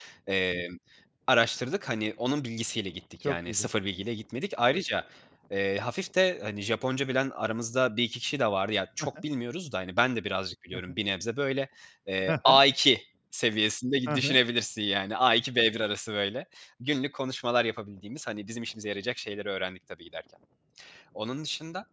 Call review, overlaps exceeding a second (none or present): none